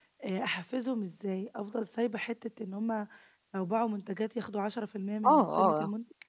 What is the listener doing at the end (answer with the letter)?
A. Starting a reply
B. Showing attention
A